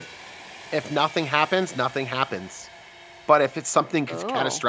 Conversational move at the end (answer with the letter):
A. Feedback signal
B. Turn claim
A